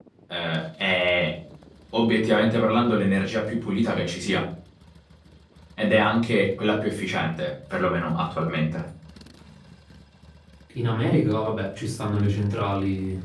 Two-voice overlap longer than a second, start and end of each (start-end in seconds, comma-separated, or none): none